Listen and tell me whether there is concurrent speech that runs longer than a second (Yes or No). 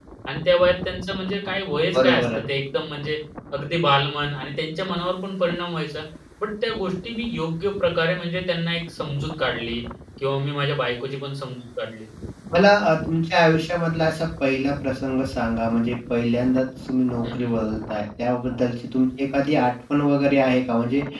No